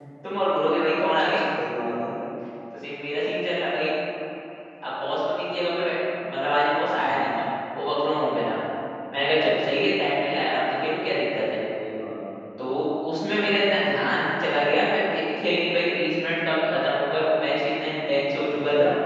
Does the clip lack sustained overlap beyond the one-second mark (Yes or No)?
Yes